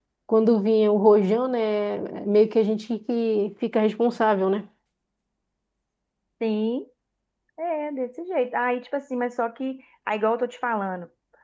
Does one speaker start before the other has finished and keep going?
No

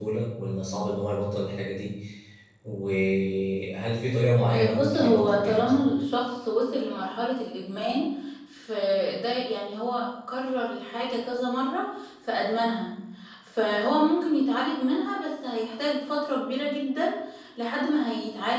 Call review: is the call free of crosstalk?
No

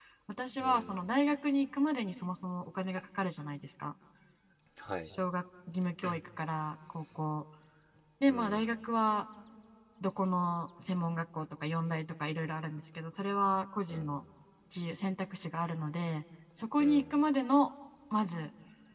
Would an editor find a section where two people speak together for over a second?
No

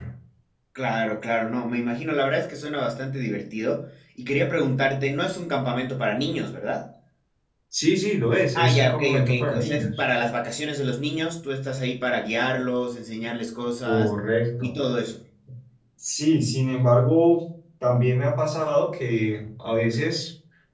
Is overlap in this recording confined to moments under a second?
No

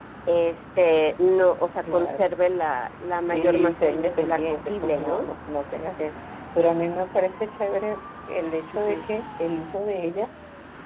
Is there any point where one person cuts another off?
Yes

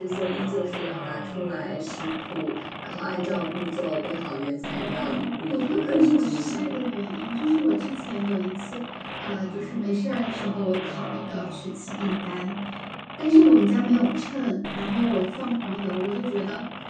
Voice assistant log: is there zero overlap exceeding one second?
No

